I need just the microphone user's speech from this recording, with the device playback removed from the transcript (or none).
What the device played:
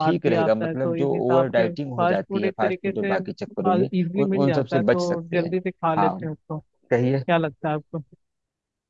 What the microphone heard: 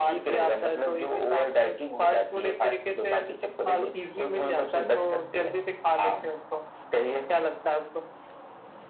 none